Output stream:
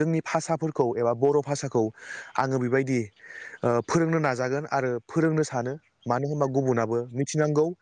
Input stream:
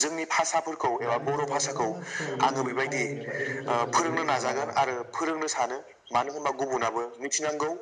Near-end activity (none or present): present